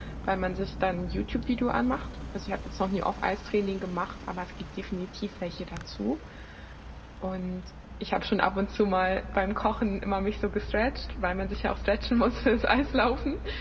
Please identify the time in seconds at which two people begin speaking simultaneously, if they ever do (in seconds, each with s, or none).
none